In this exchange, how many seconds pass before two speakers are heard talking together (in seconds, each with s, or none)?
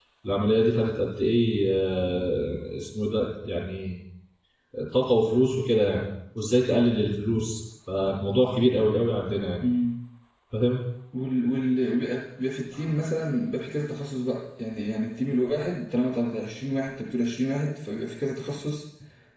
none